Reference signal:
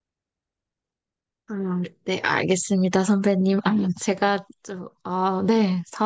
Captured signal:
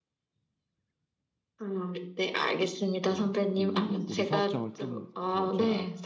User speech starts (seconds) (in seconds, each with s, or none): 3.1 s